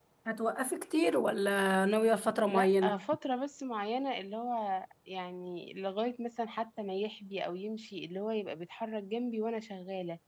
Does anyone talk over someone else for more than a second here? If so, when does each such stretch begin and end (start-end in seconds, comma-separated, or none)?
none